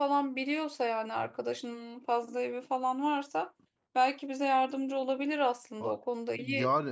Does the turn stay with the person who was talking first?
No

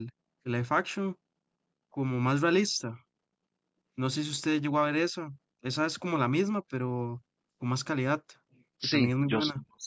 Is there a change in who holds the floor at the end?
Yes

